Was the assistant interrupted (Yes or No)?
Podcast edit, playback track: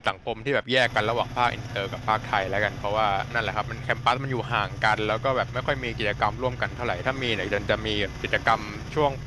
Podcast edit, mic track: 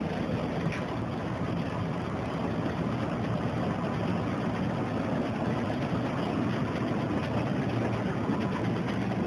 No